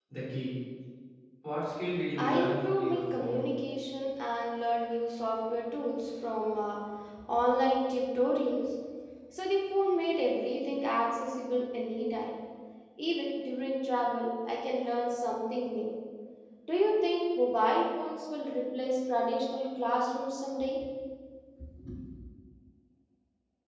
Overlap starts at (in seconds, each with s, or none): 2.2 s